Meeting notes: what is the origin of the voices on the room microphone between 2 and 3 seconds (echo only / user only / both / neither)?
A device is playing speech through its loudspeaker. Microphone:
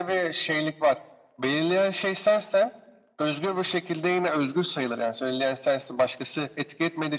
echo only